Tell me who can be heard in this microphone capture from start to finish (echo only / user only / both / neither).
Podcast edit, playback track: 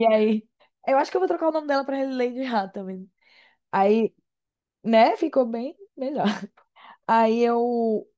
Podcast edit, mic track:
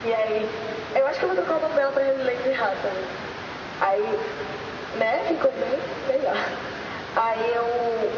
echo only